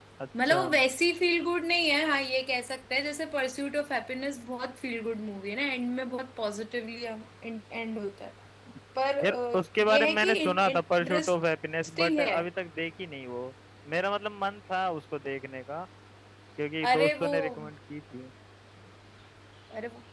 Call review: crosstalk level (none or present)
present